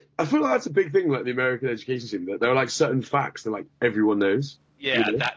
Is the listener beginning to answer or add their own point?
Yes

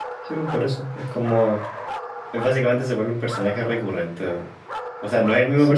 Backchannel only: Yes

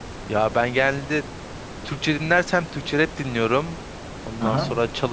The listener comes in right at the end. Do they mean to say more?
No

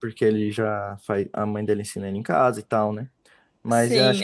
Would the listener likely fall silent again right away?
Yes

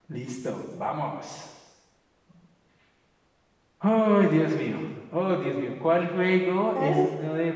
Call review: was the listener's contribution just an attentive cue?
Yes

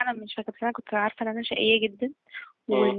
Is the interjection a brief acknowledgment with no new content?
Yes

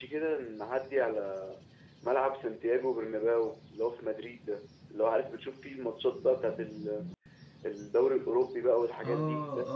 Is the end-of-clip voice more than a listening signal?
Yes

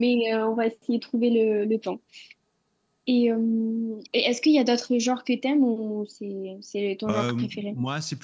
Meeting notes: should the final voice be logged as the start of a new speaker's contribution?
Yes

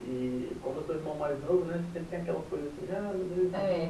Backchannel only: Yes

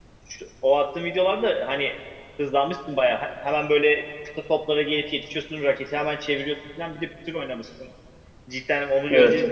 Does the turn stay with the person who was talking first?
Yes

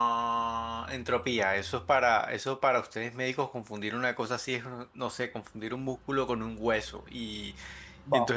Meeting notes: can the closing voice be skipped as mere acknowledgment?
No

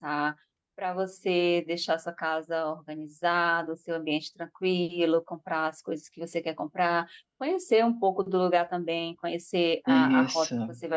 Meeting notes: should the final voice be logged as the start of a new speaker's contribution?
No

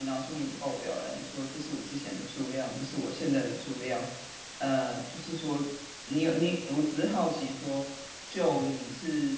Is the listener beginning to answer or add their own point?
No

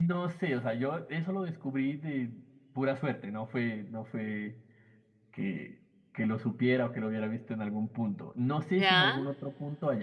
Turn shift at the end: No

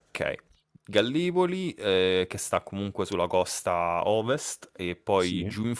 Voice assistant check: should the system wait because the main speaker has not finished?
Yes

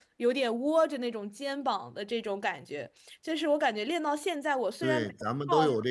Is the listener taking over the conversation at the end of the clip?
Yes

